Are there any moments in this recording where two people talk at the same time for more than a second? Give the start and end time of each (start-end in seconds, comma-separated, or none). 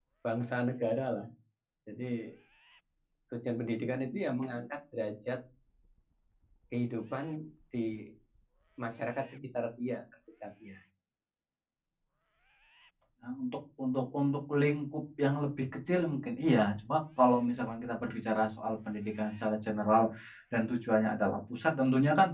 none